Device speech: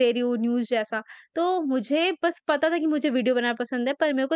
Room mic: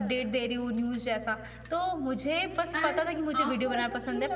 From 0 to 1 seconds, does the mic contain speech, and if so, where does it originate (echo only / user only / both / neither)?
echo only